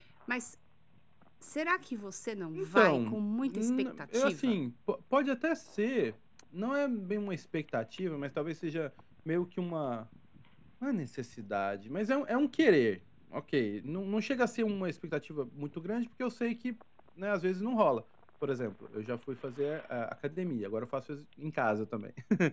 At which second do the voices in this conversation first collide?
2.6 s

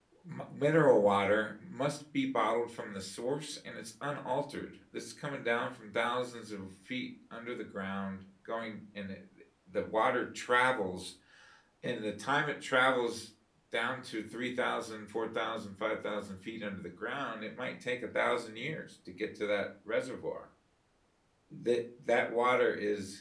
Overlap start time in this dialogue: none

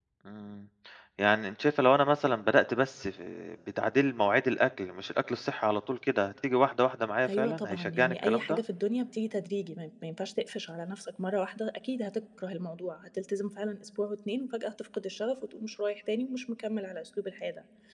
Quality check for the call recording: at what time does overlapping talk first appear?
7.2 s

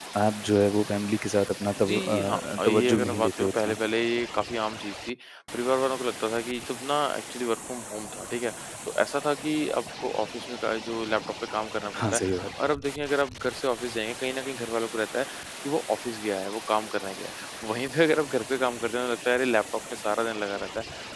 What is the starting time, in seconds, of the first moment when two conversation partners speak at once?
1.8 s

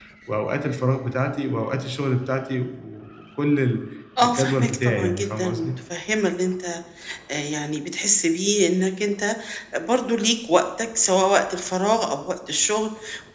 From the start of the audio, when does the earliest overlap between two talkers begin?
4.2 s

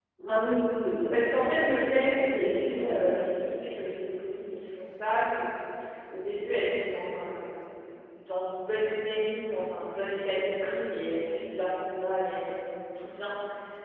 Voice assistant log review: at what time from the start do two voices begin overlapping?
1.1 s

